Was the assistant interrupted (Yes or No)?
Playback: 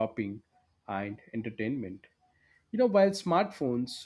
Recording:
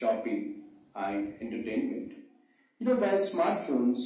No